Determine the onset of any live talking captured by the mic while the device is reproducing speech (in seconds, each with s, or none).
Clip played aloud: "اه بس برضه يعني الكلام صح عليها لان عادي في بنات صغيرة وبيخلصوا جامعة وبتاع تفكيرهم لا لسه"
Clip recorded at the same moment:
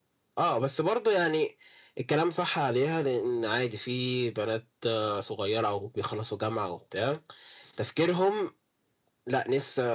none